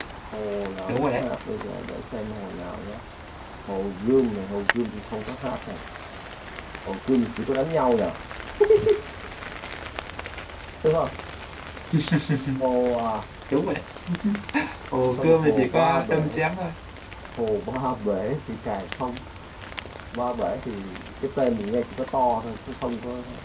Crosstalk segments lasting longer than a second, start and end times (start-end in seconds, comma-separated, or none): 15.2-16.5